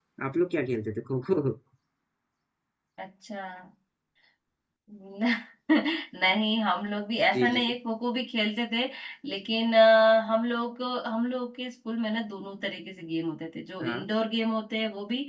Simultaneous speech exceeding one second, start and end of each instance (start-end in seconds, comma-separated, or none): none